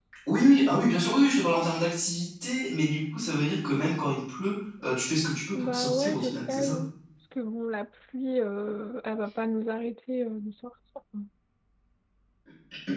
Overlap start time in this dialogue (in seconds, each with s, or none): 5.5 s